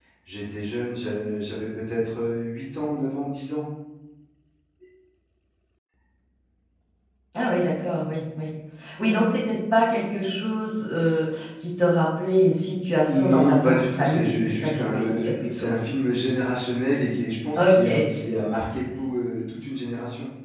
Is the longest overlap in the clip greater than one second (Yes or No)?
Yes